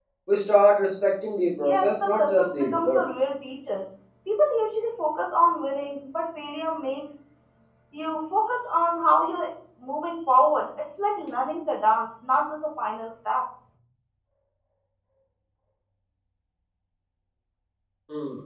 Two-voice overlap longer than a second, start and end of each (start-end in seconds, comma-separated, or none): 1.6-3.0